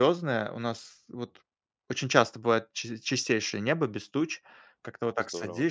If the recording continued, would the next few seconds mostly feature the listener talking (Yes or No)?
No